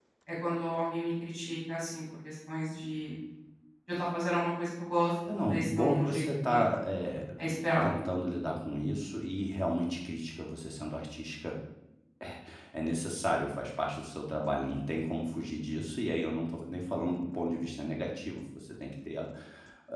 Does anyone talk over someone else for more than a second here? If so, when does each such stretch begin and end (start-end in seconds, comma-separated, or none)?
5.4-6.6